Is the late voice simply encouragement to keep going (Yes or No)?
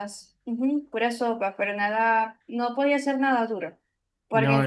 Yes